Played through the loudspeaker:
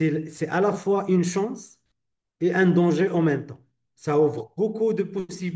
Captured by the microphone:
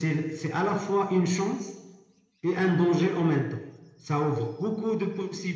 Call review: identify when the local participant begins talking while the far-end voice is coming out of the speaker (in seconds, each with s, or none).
none